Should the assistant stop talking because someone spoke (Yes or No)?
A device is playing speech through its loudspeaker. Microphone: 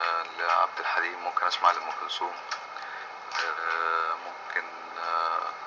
No